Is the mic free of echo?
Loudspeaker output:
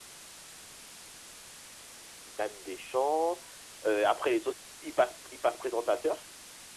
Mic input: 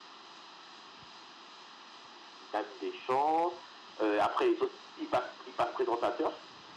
No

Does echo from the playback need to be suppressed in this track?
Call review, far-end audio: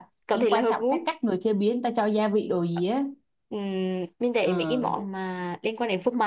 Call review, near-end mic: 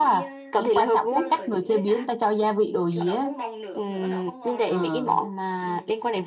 Yes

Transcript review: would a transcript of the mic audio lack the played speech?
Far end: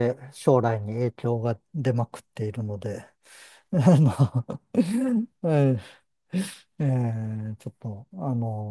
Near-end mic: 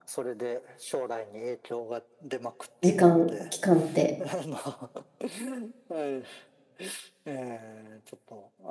No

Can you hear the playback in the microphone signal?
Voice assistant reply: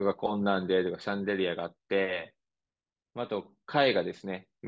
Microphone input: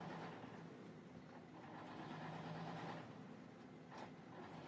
No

